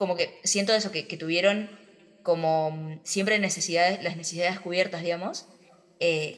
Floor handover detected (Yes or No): No